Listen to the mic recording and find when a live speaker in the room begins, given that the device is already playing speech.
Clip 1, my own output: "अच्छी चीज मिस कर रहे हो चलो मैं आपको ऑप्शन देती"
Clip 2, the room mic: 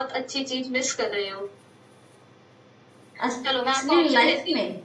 3.3 s

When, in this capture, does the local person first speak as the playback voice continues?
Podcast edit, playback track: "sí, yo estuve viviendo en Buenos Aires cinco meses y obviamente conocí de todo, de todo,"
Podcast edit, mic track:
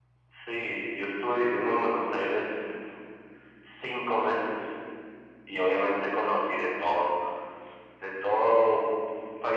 none

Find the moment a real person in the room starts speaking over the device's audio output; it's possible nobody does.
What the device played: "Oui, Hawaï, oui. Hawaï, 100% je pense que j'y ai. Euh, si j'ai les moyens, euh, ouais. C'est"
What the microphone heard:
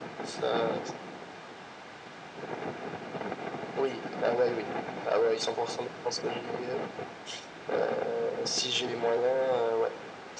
none

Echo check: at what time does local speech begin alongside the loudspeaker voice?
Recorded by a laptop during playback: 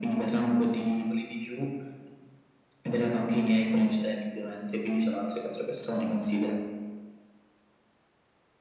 none

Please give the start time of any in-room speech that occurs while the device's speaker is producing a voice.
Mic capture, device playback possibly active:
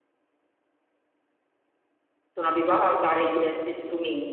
2.3 s

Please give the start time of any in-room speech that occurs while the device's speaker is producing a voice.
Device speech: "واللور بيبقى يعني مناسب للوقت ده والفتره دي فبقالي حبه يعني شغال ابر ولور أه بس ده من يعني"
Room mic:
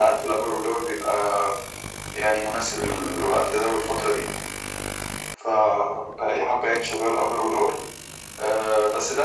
none

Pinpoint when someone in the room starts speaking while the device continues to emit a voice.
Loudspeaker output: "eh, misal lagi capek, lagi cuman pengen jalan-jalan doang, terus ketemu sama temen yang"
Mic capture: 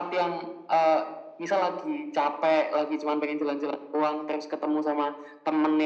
none

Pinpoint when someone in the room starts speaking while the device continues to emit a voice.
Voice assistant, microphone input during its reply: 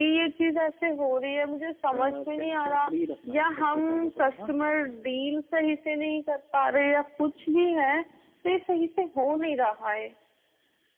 1.9 s

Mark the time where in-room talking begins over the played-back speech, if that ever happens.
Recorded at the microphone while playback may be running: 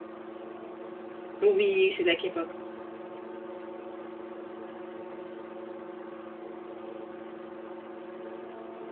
1.4 s

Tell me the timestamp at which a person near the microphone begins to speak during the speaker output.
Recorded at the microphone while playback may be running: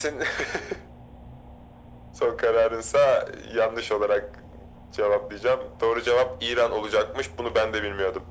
none

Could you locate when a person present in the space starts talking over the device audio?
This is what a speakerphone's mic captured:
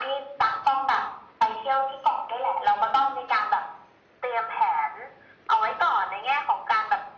none

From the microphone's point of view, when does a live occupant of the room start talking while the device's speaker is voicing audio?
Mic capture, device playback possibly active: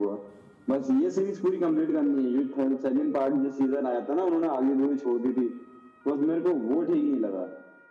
none

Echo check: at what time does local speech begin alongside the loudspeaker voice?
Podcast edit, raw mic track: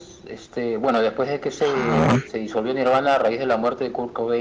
1.7 s

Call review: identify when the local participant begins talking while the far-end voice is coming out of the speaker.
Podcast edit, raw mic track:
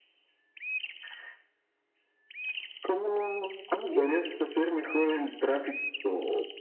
3.8 s

